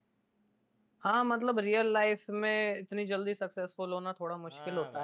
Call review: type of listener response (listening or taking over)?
taking over